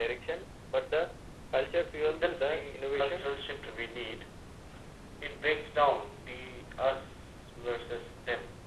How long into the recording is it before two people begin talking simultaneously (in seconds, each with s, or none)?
2.0 s